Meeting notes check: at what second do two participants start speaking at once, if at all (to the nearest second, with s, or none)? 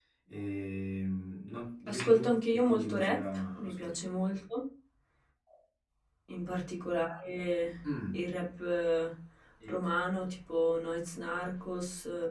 2 s